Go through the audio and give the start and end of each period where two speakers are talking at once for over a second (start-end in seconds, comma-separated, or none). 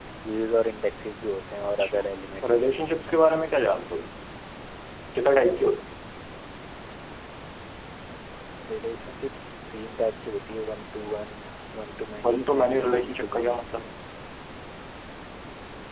12.2-13.6